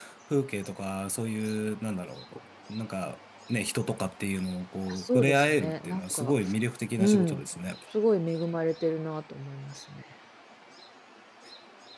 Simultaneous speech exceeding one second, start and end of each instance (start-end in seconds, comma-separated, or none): 4.9-6.3